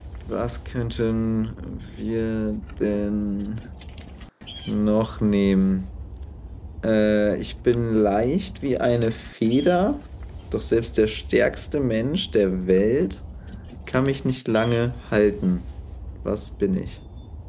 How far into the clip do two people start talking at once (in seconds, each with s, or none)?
none